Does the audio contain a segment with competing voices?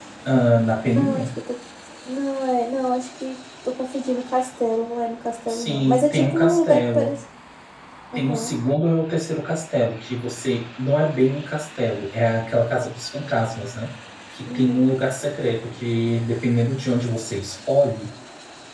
Yes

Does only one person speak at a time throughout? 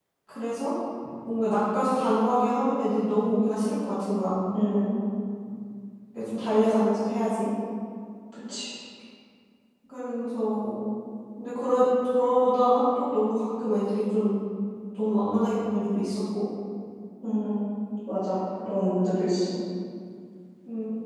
Yes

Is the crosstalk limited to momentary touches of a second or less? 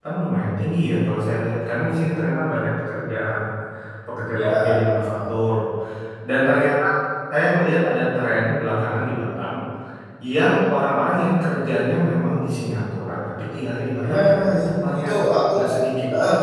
Yes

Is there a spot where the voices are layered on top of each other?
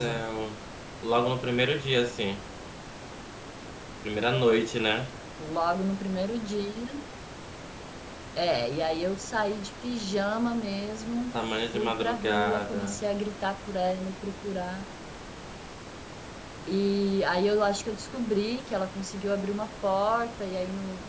Yes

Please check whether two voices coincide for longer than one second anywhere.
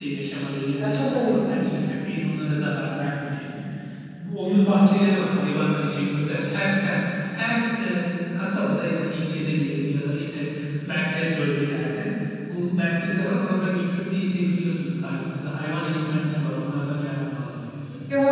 Yes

